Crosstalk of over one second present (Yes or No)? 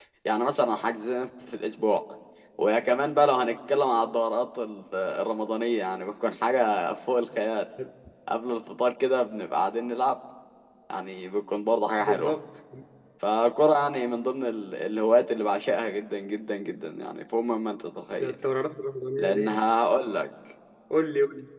No